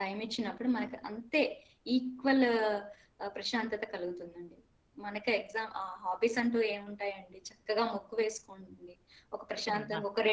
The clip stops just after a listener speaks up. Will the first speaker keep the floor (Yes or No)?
Yes